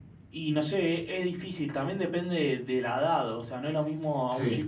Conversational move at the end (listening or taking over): listening